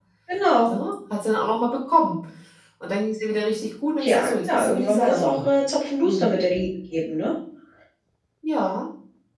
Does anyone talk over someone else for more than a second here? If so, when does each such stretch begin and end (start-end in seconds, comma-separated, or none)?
4.0-5.5